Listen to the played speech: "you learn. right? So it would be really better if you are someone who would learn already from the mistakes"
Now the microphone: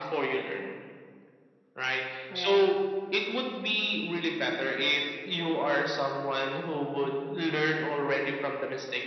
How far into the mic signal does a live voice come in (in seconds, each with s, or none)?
2.3 s